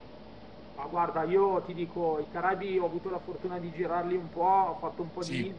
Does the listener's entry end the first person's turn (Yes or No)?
No